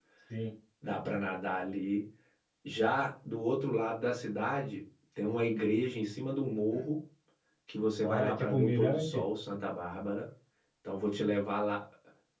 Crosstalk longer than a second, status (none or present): present